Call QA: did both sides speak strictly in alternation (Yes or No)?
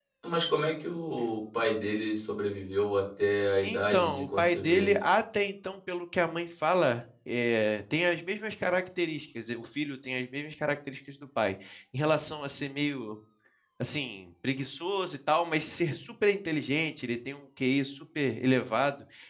No